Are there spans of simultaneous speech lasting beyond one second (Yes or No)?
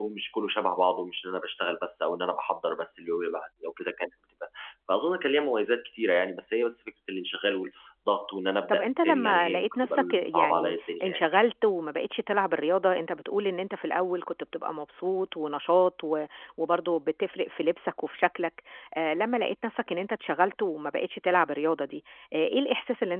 Yes